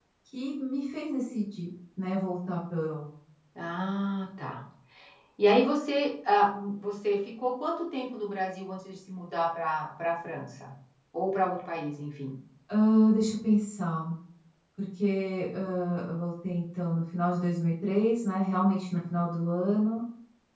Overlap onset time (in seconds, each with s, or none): none